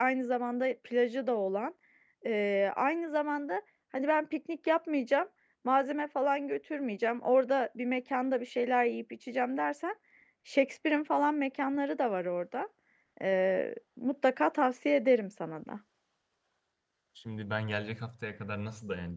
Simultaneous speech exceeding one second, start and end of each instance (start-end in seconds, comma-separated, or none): none